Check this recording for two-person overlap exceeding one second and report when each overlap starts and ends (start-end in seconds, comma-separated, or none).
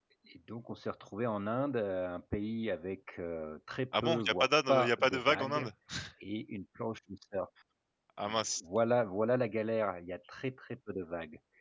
4.0-5.7